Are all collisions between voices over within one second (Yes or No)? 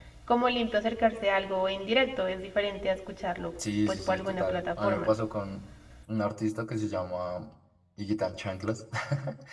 No